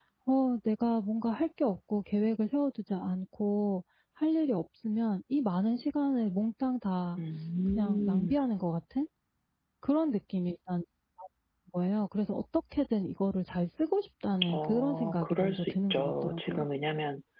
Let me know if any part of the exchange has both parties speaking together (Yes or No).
Yes